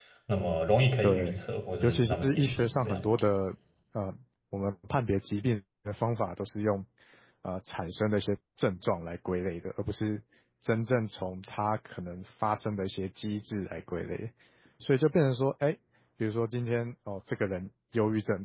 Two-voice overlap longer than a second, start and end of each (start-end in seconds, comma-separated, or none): 1.8-3.1